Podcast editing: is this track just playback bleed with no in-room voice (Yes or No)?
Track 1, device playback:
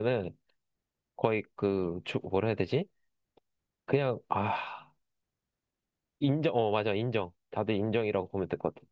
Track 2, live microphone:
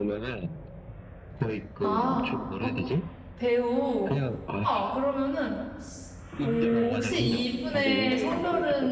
No